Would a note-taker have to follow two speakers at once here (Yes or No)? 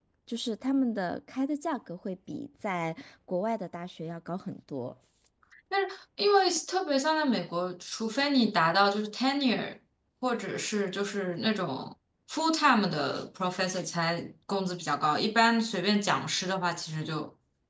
No